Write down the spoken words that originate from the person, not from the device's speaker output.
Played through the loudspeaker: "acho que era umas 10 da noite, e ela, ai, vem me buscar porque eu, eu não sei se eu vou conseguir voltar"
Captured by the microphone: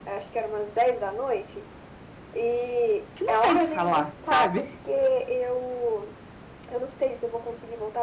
que não tem que falar, sabe?

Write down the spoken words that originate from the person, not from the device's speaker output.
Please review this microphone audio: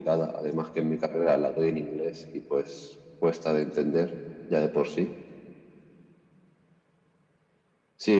none

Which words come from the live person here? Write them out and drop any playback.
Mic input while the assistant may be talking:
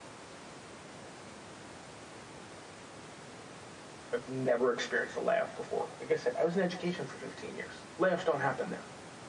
I've never experienced a layoff before. Like I said, I was in education for 15 years. Layoffs don't happen there.

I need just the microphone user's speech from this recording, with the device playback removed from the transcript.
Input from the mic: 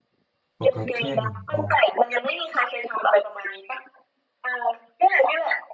ปกติเทนอ๋อ

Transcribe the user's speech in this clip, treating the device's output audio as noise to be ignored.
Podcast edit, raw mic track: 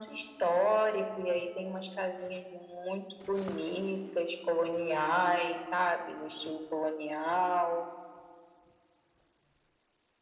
none

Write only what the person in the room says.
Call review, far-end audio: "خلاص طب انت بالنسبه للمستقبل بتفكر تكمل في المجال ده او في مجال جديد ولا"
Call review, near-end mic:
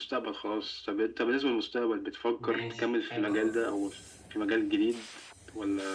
ماشي حلو قوي ده

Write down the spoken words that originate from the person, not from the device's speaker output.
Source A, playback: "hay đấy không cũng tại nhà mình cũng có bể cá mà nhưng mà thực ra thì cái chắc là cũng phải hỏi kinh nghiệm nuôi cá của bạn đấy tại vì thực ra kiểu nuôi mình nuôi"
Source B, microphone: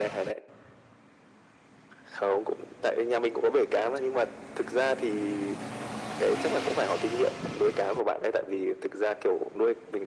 none

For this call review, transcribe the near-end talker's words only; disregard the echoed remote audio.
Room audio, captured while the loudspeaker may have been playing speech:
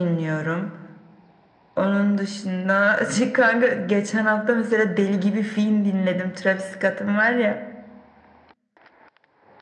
none

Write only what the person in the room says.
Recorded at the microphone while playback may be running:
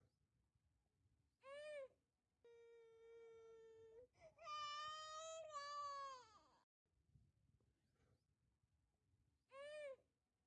none

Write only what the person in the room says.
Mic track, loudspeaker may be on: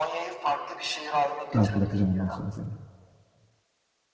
Rahat bırakacağım ondan sonra seni.

